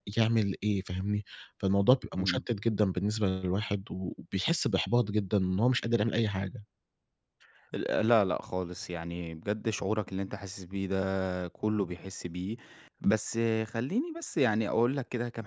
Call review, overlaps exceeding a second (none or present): none